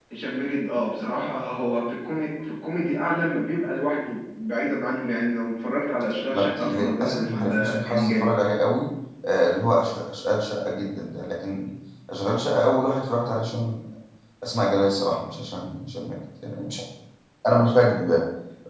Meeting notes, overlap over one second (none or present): present